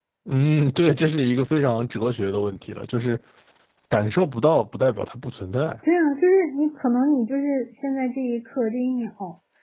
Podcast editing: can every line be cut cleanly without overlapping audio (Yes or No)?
Yes